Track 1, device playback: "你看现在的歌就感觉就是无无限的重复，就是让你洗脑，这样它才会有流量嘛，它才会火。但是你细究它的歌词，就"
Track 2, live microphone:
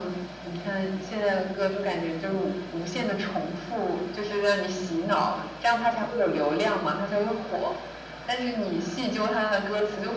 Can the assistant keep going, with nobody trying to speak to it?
Yes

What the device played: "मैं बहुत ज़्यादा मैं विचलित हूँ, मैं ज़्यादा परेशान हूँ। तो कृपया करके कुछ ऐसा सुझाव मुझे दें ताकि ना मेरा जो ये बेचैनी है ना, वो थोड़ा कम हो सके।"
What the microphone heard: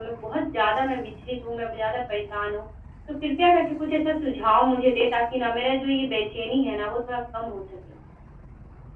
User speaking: No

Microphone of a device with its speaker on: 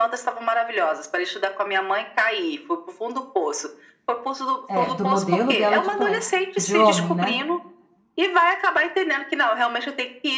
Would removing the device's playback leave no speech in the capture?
No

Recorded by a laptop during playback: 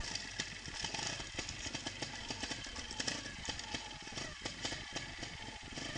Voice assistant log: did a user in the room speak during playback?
No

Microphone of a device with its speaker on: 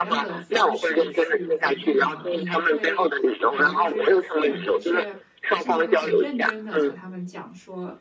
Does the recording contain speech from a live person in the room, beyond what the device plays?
Yes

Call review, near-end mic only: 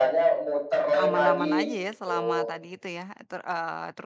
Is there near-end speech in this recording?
Yes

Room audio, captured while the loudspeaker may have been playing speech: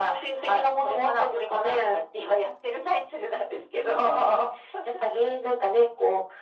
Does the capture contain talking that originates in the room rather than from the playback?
No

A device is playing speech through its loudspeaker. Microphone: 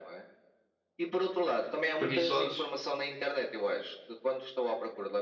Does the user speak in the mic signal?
Yes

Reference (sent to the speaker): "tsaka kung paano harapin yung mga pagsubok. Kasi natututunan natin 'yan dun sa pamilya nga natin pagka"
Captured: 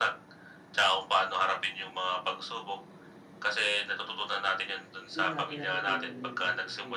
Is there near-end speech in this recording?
Yes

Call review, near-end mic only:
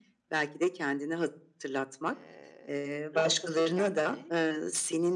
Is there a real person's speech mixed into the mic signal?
Yes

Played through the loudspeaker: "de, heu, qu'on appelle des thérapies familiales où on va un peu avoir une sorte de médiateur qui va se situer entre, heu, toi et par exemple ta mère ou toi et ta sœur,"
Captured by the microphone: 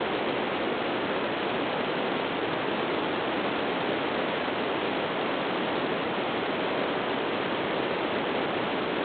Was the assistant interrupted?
No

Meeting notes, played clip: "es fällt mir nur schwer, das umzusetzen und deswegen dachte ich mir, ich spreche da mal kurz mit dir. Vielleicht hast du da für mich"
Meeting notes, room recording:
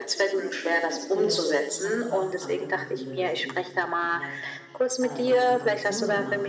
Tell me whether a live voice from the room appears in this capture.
Yes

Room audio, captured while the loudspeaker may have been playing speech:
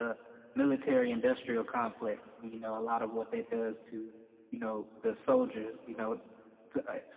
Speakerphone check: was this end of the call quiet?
Yes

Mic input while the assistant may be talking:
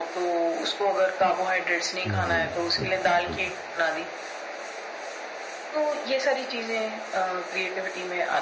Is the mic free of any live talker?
No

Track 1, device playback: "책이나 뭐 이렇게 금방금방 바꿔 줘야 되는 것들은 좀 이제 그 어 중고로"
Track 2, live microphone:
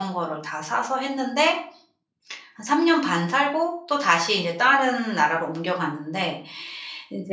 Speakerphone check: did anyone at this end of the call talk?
Yes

